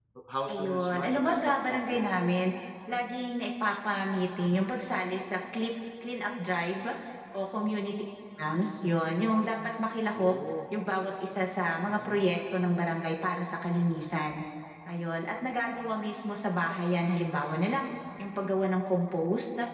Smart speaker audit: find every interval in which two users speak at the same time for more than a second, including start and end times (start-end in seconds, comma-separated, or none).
0.5-2.2